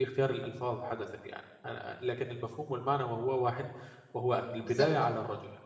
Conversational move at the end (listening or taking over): listening